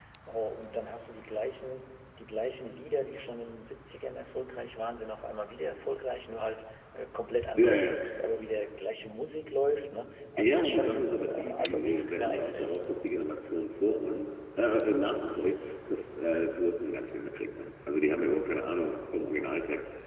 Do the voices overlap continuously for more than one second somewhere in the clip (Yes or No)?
Yes